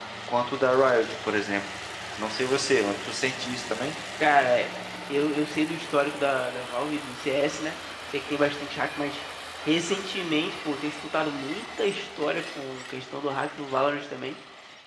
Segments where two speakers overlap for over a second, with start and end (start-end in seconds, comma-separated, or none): none